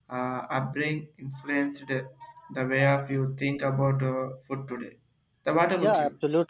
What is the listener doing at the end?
taking over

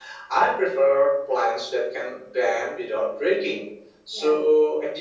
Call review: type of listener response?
listening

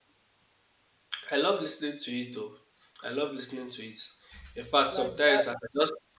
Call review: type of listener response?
listening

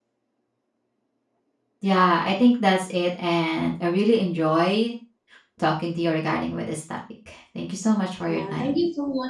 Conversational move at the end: taking over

